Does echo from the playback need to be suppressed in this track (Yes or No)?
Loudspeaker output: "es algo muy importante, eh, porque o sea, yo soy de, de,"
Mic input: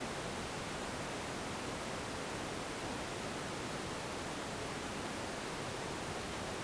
No